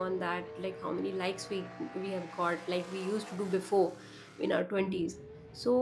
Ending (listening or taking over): listening